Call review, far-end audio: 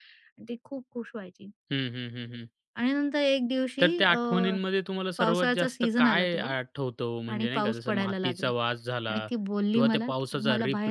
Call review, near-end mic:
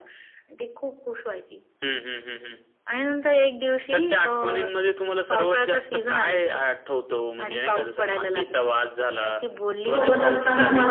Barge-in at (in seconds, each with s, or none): 9.9 s